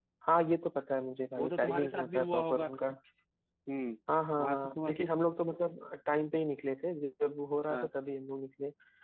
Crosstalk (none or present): present